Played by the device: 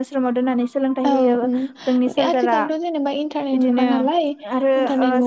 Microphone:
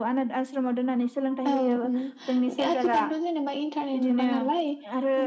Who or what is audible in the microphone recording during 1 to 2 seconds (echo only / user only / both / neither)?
echo only